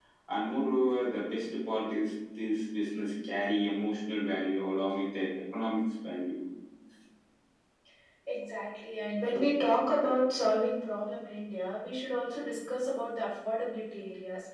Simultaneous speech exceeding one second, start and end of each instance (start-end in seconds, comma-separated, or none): none